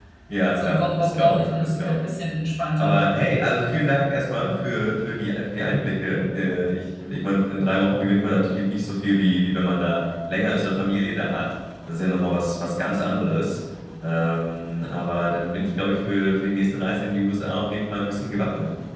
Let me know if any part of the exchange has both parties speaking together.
Yes, from 0.5 s

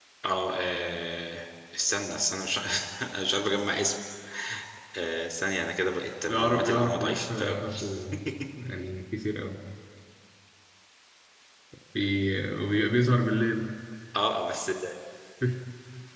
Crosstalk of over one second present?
Yes, from 6.3 s

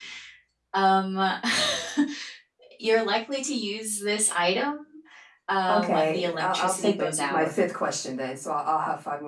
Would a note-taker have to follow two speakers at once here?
Yes, from 5.7 s

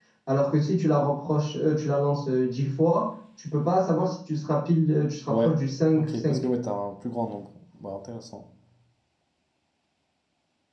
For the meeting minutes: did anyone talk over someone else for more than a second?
No

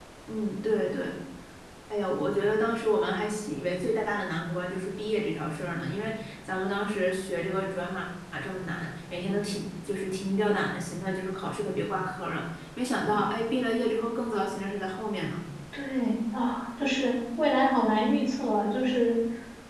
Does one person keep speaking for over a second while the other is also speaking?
No

